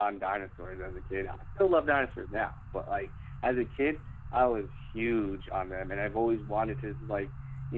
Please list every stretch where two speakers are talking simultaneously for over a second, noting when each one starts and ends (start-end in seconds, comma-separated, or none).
none